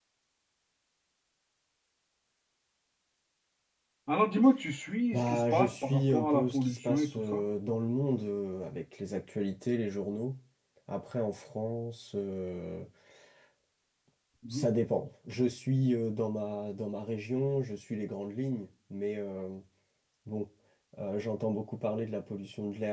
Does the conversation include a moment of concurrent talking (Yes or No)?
Yes